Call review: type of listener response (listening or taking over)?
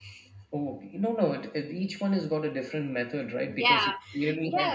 taking over